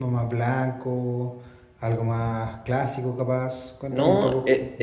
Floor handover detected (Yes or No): Yes